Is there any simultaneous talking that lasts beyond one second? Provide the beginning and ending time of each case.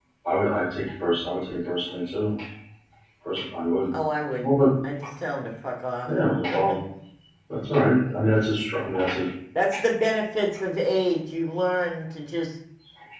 none

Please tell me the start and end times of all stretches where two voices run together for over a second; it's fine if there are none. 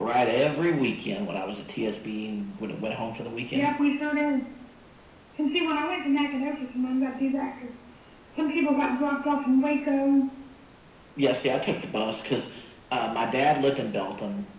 none

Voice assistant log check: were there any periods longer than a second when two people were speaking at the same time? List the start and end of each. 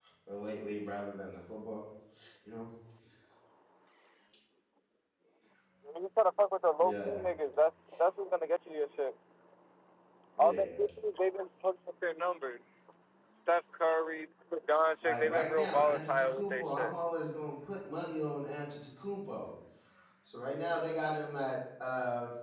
15.0-16.9

